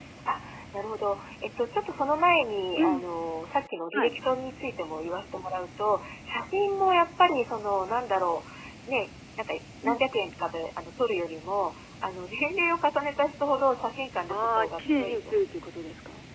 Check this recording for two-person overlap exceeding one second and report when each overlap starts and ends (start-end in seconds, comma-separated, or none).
14.3-15.8